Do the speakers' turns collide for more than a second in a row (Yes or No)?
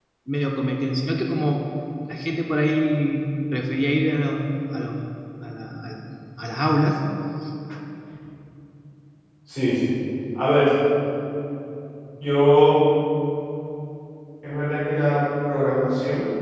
No